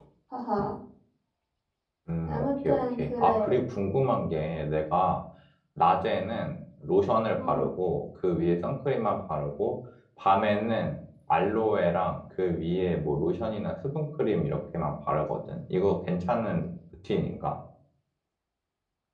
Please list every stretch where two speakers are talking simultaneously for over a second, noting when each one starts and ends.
2.3-3.6

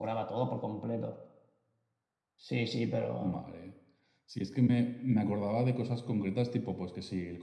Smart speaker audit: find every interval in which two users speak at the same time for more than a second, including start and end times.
none

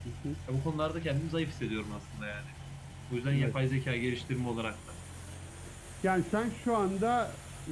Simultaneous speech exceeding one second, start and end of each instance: none

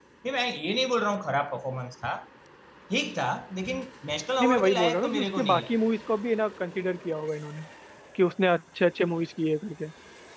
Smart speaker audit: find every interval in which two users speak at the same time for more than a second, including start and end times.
4.4-5.7

